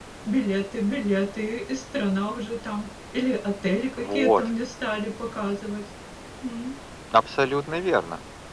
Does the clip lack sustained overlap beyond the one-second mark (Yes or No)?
Yes